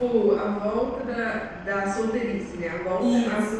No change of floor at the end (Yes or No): No